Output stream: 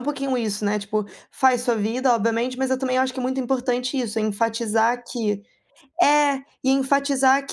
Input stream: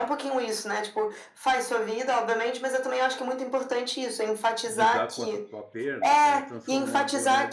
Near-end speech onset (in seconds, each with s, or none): 4.6 s